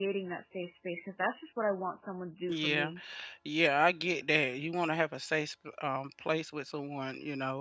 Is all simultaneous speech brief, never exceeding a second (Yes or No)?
Yes